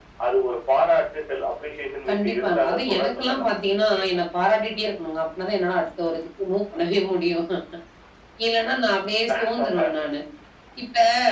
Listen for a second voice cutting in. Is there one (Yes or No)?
Yes